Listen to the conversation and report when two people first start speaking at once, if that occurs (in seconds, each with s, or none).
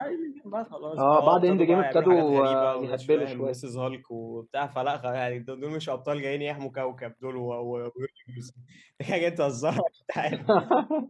1.0 s